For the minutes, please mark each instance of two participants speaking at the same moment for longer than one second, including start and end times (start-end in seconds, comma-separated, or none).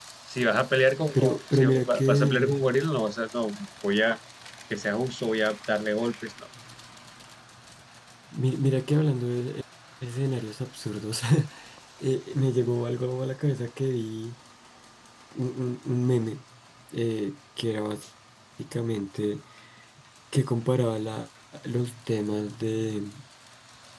1.1-2.5